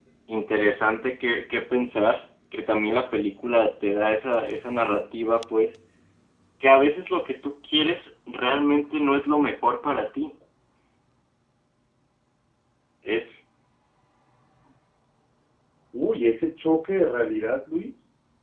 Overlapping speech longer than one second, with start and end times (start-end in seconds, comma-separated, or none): none